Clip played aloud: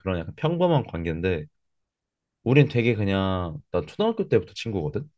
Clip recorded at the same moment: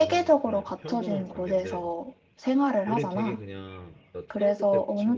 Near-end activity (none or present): present